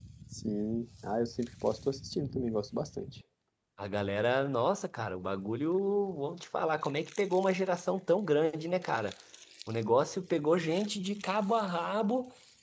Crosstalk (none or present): none